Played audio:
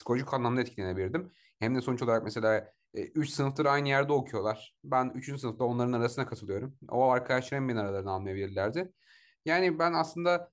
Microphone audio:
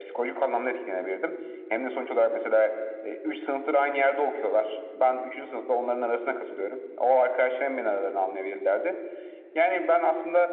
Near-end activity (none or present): none